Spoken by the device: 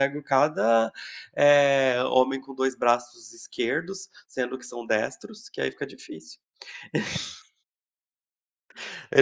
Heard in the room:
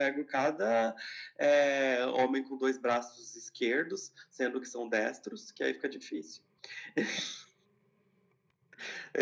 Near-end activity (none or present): none